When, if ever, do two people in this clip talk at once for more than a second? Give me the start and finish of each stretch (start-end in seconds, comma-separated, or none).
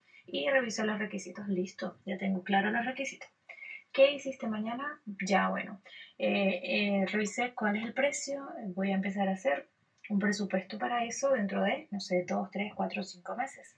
none